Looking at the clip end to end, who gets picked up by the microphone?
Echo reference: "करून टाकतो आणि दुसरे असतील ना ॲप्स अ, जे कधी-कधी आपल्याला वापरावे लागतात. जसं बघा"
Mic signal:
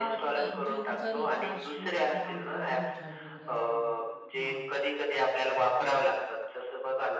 both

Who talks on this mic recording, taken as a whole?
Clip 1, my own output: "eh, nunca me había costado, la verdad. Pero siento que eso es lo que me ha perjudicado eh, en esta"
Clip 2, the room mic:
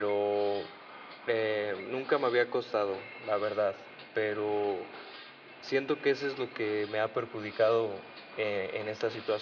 echo only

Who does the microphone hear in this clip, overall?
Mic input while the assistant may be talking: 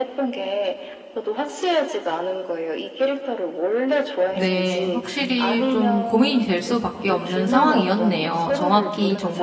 both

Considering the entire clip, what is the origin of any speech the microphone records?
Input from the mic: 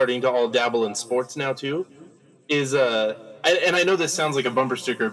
echo only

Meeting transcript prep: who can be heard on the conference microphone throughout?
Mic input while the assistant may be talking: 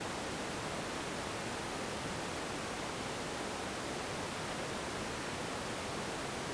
neither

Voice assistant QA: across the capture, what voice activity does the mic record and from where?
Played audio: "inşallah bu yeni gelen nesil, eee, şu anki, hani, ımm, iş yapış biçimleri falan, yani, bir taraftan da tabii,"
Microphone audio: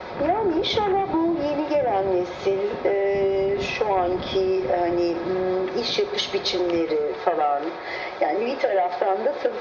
echo only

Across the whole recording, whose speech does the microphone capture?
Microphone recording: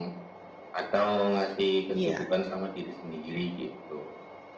both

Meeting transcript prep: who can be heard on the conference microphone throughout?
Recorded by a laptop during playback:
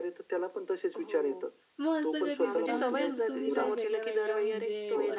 both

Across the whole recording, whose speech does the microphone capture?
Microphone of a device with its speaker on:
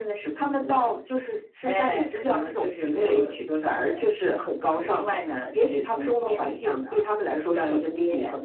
echo only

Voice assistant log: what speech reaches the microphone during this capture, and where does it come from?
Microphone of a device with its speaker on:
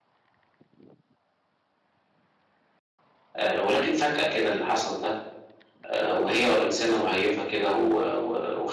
user only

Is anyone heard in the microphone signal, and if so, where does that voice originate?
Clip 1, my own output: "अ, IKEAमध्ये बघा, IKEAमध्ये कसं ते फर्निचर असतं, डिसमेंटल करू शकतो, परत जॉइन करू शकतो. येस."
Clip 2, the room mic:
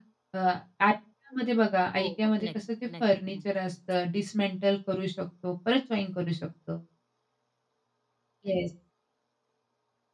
both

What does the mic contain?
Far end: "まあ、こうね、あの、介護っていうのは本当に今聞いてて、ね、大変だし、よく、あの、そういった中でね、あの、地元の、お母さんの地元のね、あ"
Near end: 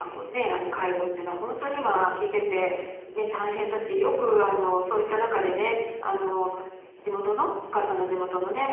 echo only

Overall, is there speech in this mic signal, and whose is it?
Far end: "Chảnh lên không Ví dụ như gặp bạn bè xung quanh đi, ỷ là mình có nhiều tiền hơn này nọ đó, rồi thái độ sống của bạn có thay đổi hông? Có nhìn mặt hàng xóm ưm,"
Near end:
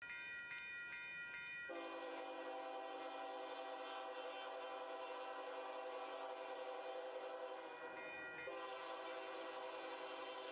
neither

